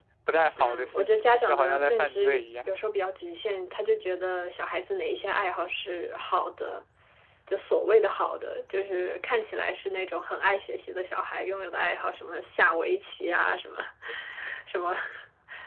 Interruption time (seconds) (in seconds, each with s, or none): 0.6 s